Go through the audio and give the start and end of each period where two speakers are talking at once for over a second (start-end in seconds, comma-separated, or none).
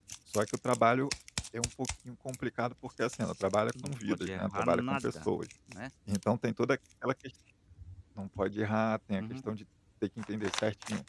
3.8-5.3